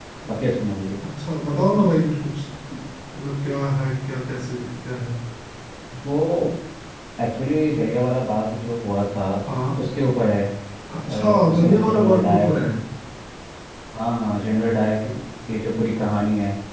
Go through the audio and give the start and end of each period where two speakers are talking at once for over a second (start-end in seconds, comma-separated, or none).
11.1-12.5